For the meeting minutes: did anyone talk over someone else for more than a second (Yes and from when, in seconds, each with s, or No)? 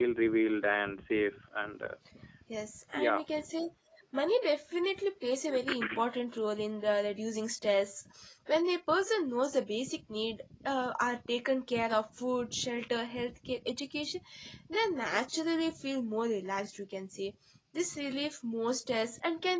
No